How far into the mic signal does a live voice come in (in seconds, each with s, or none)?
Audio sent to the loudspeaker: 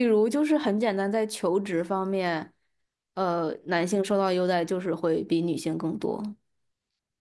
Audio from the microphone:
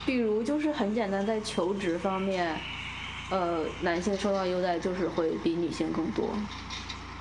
none